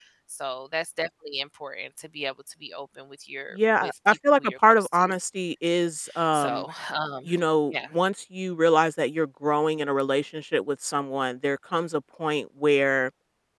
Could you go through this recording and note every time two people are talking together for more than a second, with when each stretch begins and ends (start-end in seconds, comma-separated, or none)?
3.5-5.1